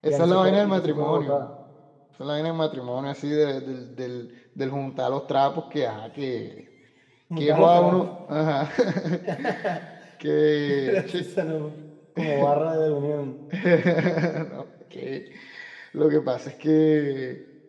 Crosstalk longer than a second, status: present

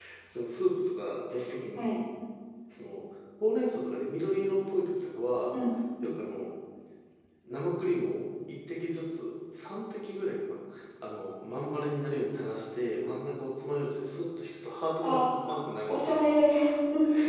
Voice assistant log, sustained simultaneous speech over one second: none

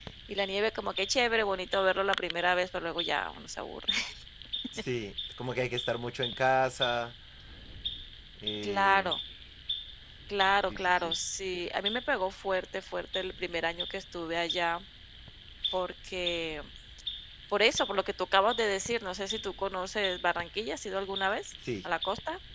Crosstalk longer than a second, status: none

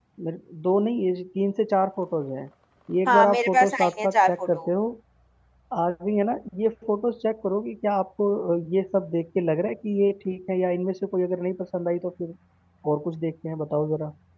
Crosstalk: present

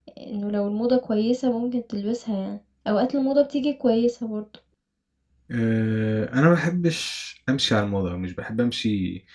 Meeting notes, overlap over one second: none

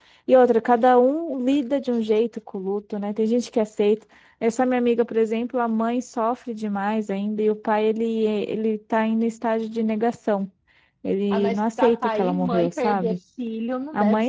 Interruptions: present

